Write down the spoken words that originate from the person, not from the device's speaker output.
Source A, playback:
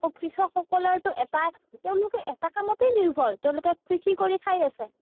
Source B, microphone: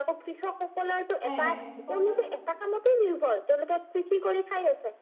হয় হয় কওকচোন।

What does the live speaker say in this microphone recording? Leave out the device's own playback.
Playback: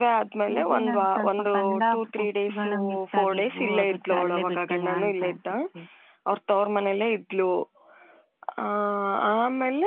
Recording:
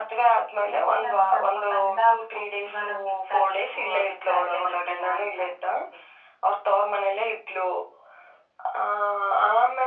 none

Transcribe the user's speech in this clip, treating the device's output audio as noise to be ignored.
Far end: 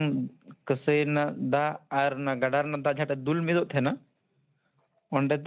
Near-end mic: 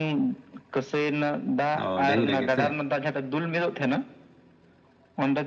ᱚ ᱰᱟᱹᱦᱤ ᱨᱮᱜᱮ ᱥᱮ

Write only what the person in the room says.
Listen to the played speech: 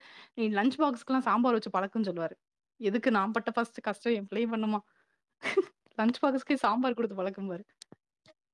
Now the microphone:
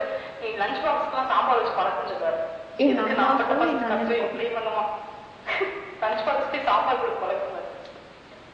எங்க அம்மாக்கு எங்க அண்ணனுக்கு

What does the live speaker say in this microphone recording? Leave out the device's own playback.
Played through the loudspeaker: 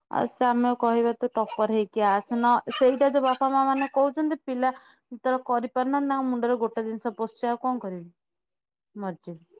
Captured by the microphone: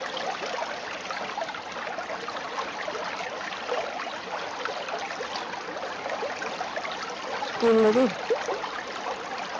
ସ୍କୁଲରେ ବି।

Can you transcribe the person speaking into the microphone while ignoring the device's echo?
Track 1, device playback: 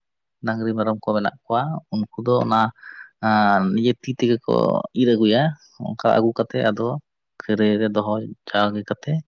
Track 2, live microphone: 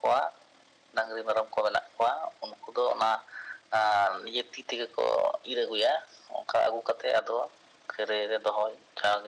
none

